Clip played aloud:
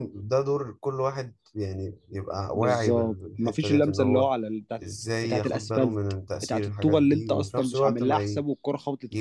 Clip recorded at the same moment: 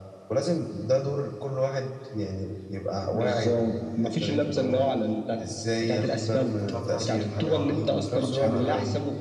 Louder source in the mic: echo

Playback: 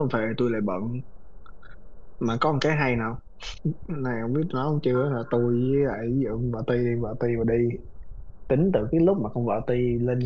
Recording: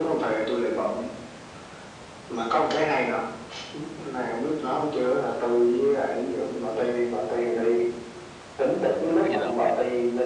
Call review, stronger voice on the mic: echo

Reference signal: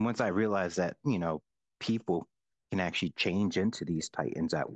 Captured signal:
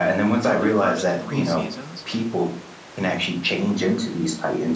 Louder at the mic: echo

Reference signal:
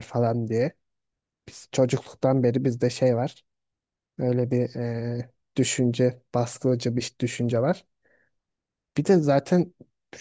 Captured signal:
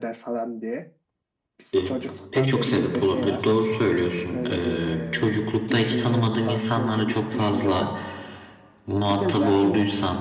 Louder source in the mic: user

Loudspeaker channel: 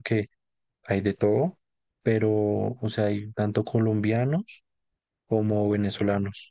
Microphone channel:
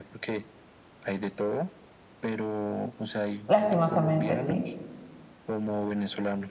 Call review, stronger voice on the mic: user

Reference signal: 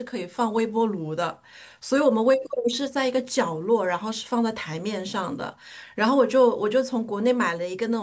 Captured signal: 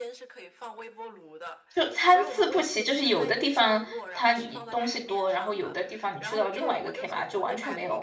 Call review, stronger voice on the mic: user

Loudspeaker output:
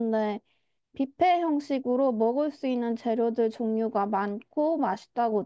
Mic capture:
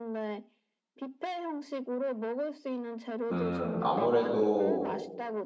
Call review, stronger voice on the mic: user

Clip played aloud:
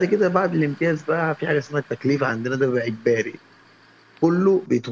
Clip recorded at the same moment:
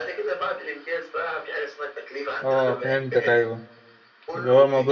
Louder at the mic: user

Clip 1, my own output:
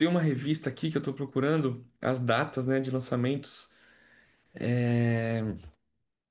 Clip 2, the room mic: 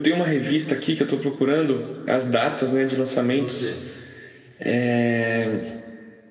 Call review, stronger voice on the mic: echo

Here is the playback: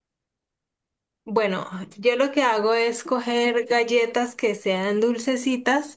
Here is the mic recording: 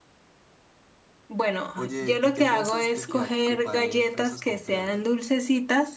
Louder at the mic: echo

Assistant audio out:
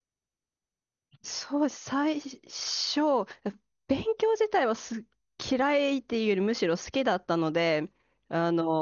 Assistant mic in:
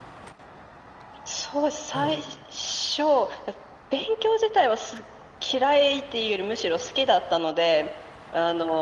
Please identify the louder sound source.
echo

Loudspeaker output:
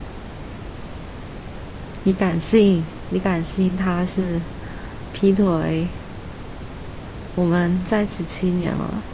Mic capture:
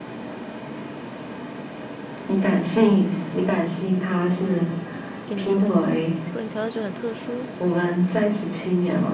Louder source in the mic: echo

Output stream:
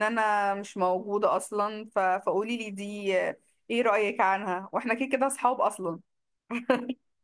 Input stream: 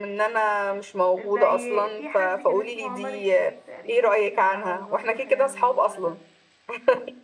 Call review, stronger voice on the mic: echo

